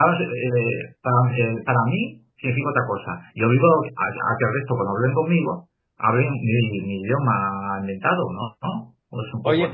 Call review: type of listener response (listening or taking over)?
taking over